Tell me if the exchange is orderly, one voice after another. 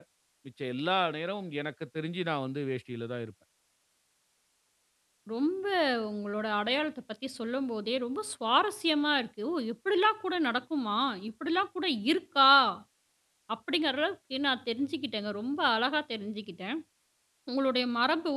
Yes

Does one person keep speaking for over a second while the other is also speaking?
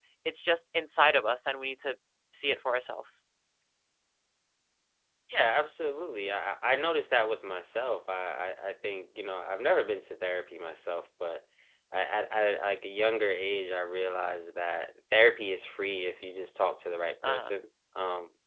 No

